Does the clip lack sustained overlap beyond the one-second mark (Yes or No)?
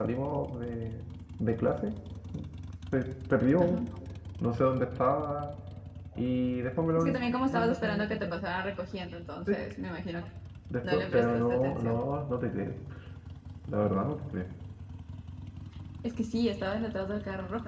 No